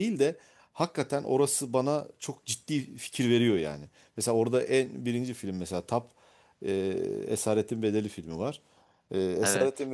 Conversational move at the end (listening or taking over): listening